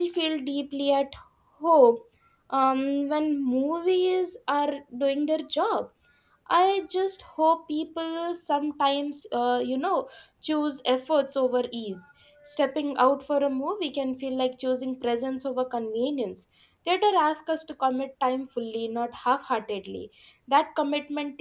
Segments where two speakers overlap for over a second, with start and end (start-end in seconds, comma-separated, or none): none